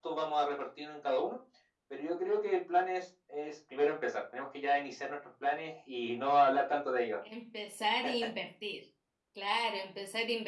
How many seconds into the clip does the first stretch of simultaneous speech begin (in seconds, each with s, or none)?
none